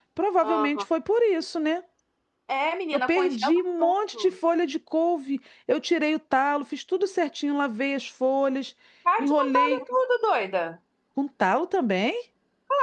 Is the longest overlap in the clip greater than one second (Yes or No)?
Yes